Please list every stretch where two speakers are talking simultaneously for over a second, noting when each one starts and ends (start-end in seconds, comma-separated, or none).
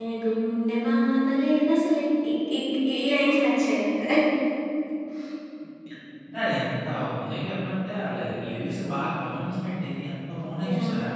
none